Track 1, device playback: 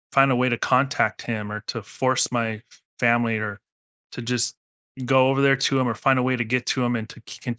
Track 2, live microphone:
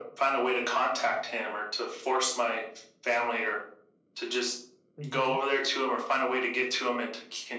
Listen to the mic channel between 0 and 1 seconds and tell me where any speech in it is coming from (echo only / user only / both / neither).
echo only